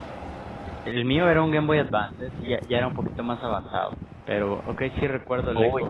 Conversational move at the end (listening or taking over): taking over